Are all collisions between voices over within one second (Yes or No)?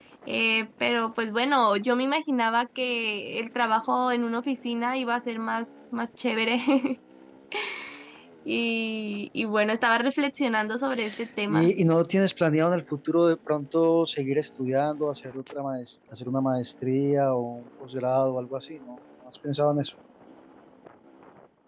Yes